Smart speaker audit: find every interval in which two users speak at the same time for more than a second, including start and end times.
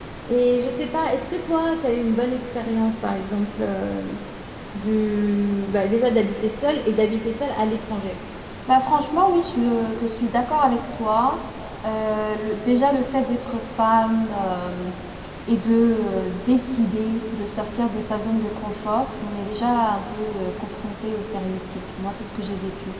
none

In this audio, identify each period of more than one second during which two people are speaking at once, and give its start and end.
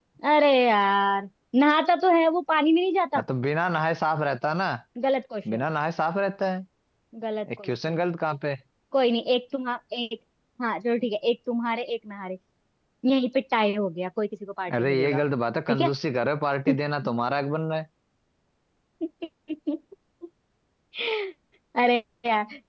none

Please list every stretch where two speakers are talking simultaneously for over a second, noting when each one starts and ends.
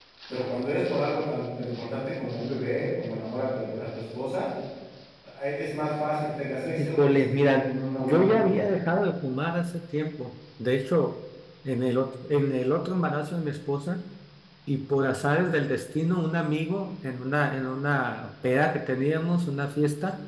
6.8-8.5

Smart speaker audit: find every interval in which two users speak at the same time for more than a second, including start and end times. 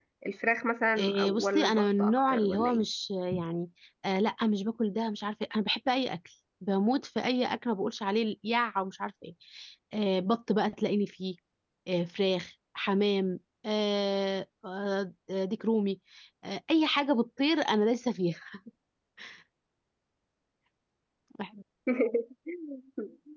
1.0-2.8

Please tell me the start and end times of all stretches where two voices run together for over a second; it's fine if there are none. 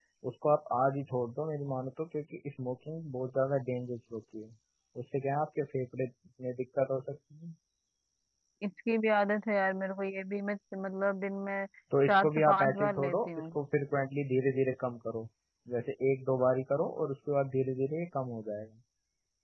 12.1-13.3

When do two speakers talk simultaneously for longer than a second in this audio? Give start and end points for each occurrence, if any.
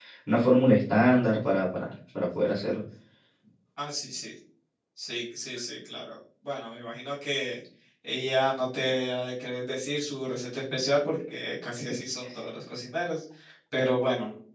none

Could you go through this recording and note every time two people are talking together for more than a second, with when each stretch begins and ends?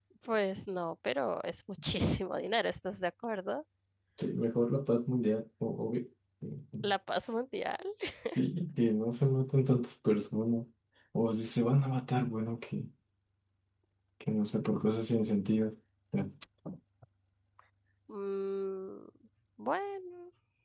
none

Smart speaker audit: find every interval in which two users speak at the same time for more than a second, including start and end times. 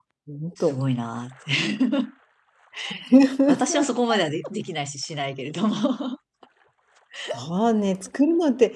none

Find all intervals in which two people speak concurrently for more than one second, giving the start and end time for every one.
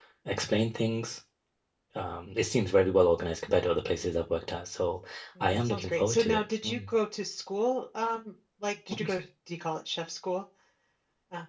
5.4-6.8

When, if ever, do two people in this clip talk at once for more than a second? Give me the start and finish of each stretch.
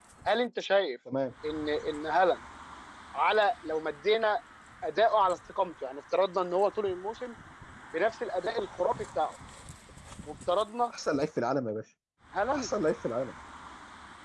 none

